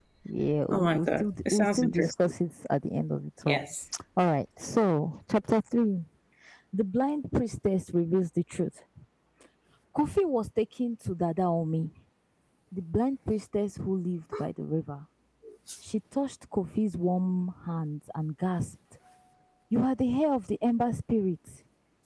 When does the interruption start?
0.7 s

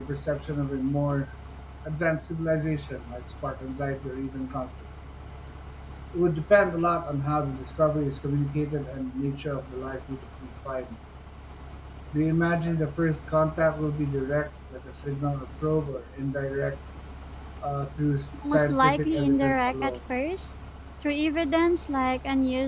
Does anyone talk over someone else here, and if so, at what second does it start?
18.5 s

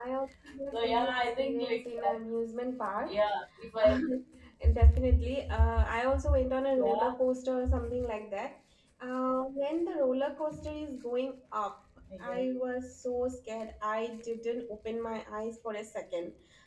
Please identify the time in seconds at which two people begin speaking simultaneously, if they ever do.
0.7 s

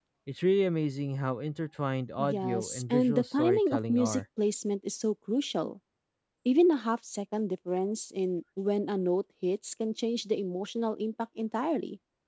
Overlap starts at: 2.2 s

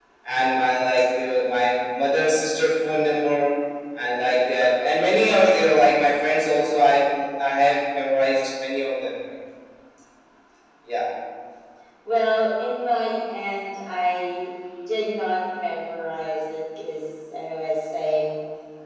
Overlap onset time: none

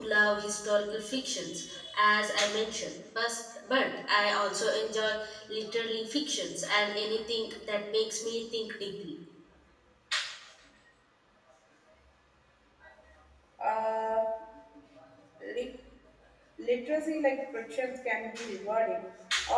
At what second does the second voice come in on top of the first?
none

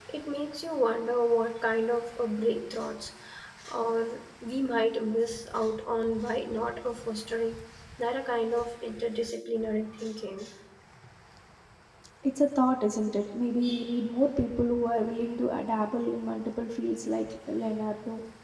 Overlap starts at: none

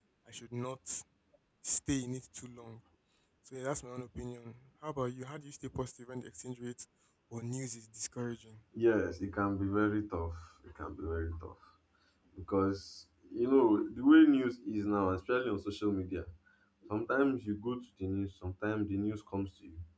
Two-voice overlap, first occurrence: none

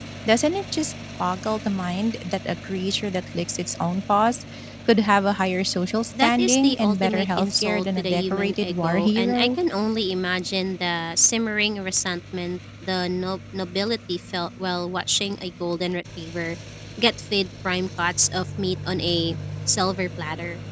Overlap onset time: 6.1 s

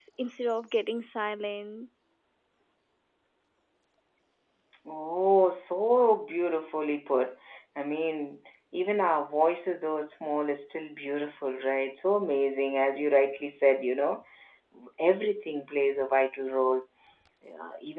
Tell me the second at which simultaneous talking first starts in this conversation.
none

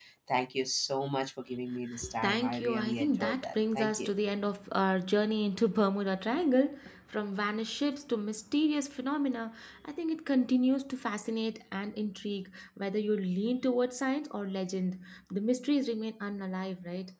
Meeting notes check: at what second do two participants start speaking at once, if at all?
2.2 s

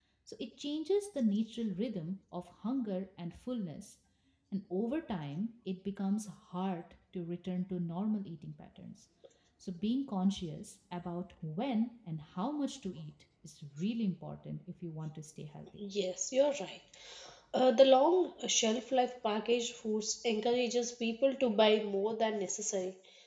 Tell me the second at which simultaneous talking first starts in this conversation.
none

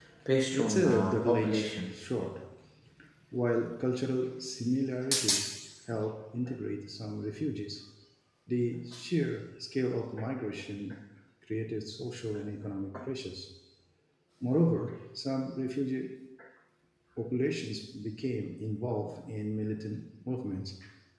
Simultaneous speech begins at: 0.5 s

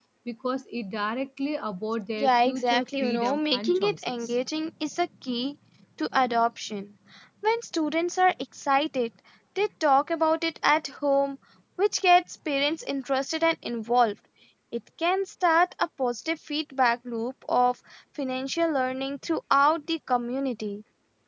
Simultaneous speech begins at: 2.2 s

